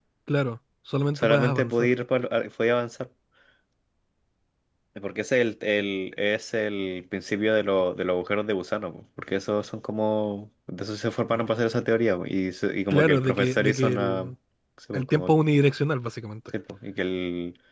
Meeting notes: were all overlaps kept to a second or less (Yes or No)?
No